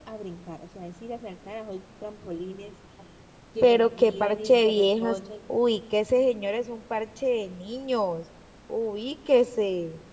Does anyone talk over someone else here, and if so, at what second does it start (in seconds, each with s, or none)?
3.6 s